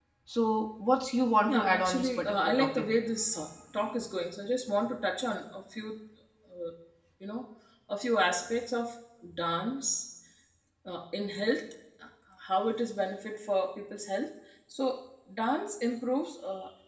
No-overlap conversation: No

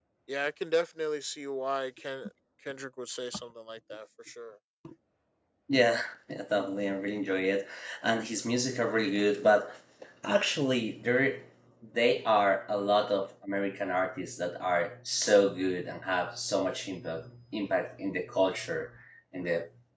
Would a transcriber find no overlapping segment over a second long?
Yes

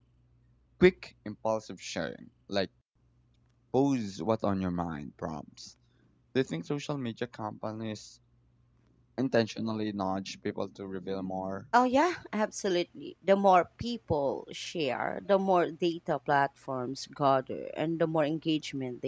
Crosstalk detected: No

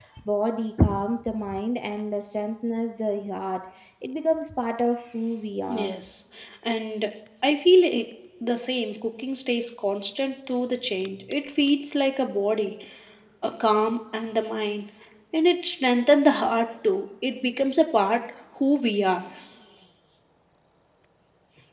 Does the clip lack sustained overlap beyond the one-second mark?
Yes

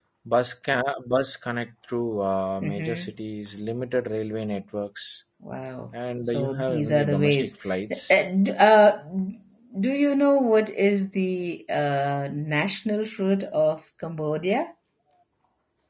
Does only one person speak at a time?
No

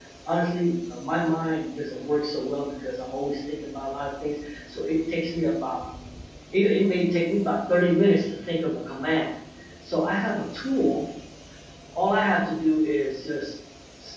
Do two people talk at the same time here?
No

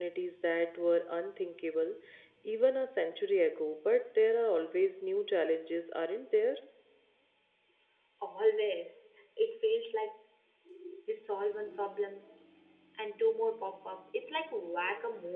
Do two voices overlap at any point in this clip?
No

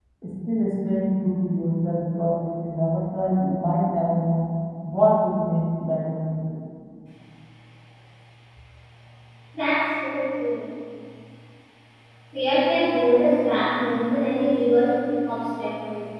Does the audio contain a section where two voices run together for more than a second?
No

